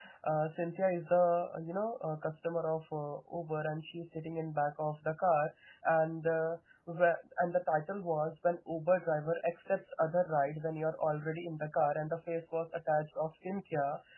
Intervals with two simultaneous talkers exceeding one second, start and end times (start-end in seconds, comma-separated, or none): none